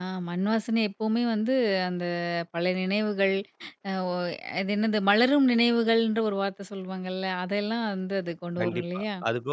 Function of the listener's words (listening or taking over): taking over